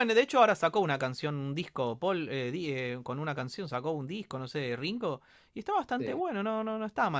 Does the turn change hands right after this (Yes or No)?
No